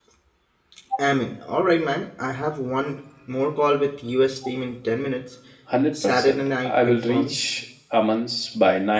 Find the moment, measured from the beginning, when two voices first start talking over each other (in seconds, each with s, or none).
6.0 s